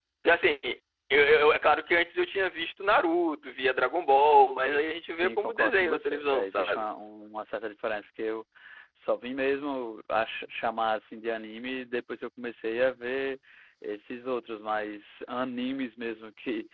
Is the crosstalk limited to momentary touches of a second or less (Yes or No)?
No